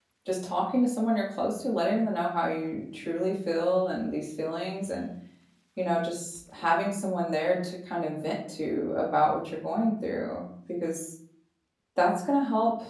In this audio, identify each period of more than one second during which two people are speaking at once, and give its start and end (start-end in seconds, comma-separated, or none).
none